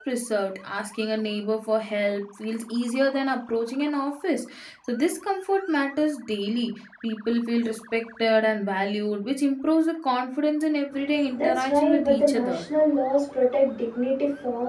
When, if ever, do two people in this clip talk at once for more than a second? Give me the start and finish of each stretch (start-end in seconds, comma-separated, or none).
11.4-12.7